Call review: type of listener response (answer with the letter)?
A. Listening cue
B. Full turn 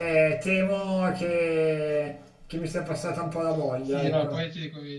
B